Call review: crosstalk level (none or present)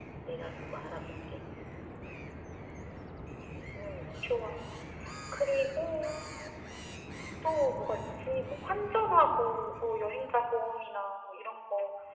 none